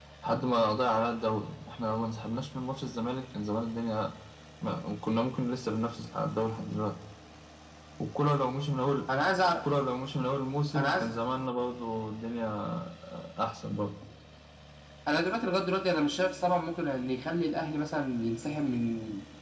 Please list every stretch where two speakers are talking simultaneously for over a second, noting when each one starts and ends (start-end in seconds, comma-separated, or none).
none